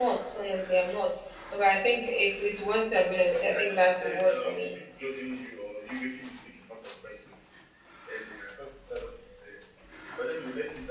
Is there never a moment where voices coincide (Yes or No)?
No